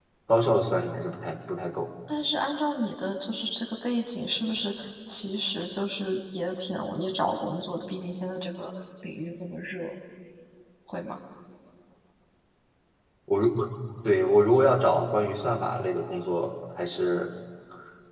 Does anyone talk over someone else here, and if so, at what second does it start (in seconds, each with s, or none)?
none